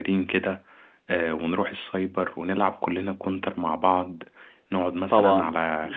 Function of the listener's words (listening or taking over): listening